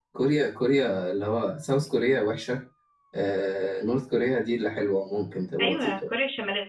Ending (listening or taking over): taking over